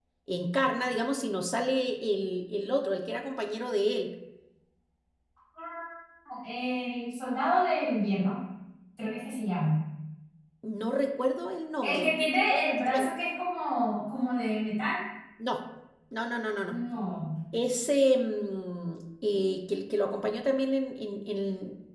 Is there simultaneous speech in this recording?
Yes, from 11.8 s

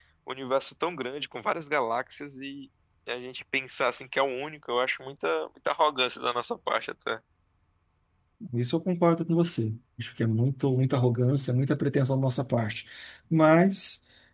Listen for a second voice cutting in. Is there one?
No

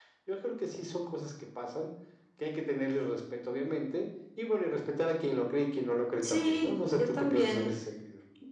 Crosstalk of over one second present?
Yes, from 6.2 s

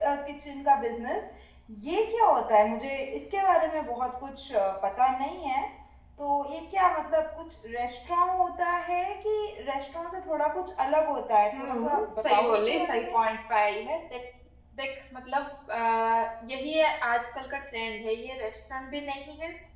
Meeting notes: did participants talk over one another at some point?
Yes, from 11.5 s

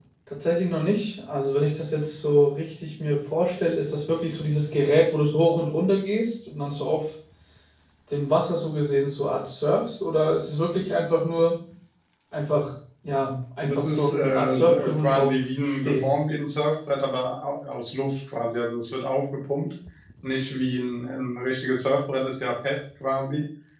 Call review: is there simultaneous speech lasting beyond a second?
Yes, from 13.6 s

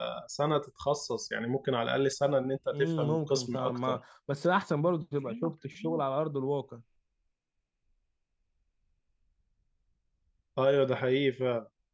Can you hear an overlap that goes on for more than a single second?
Yes, from 2.7 s

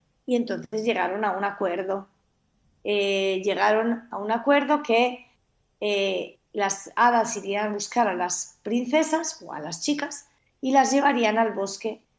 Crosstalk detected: No

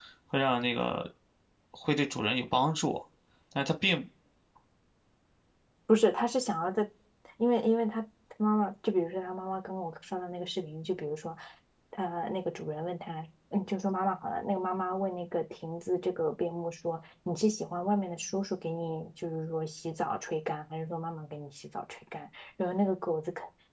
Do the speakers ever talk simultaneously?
No

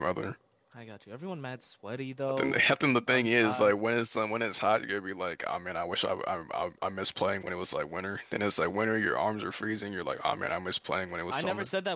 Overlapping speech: Yes, from 2.3 s

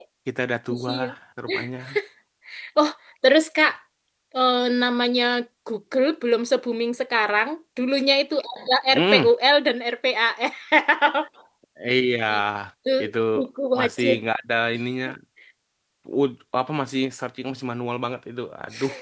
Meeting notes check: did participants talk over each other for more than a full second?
No

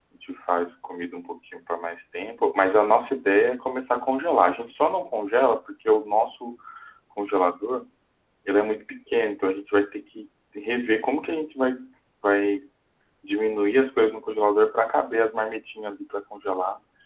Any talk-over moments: No

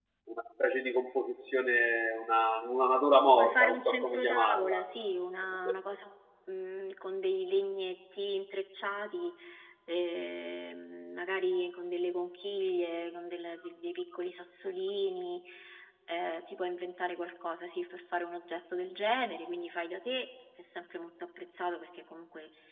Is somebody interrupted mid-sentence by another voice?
Yes, from 3.4 s

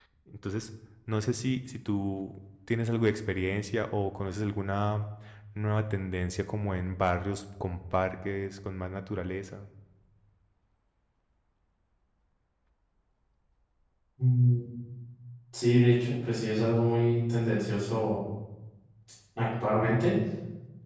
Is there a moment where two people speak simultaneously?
No

